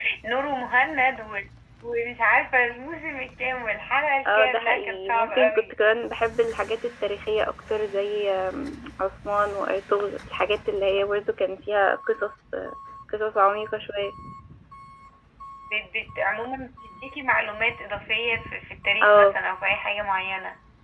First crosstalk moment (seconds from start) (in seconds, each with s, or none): 4.3 s